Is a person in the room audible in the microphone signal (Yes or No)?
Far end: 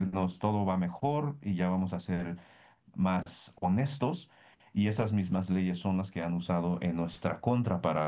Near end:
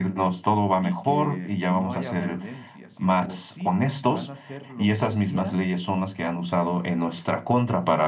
Yes